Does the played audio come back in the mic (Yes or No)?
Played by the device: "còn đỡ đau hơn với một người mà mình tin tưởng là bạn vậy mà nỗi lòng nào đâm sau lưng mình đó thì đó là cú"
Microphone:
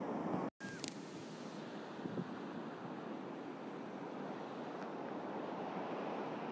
No